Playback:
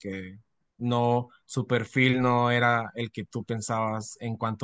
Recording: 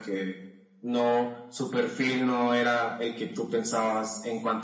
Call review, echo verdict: present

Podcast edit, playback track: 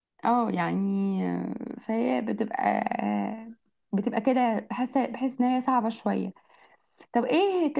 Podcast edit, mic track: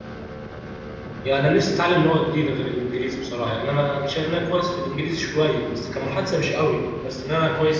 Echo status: none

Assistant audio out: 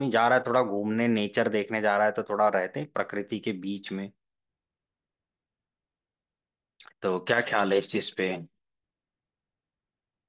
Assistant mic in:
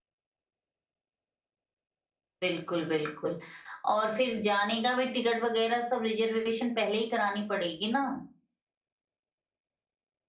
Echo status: none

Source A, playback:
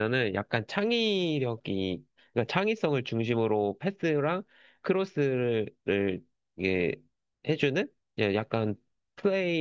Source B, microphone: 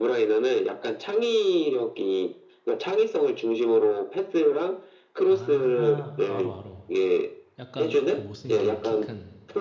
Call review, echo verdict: present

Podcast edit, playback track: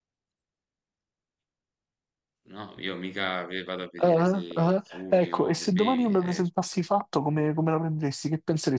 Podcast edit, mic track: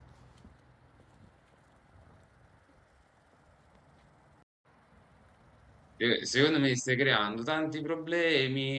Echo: none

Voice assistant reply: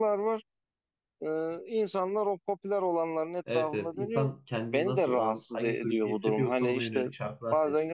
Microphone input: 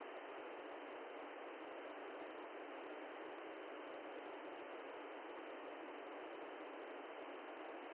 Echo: none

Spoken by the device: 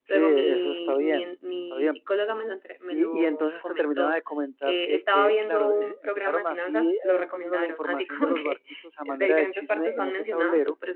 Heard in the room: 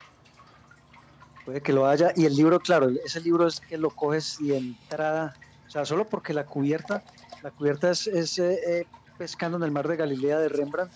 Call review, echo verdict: none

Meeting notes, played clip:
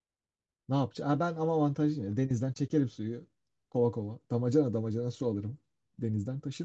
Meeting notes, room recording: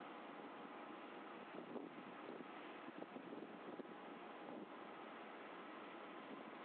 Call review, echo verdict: none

